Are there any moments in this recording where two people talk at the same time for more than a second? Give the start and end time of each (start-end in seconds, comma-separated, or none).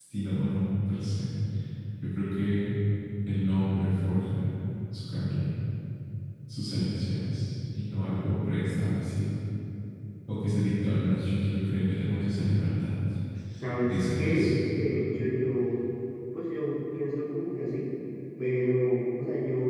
13.9-15.1